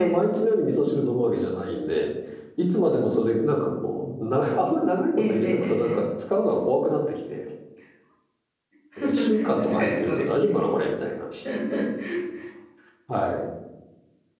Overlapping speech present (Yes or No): Yes